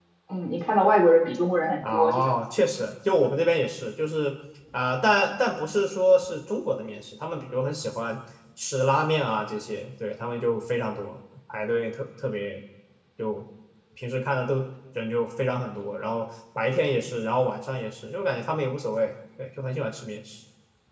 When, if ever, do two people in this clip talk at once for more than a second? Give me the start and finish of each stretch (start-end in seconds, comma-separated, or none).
none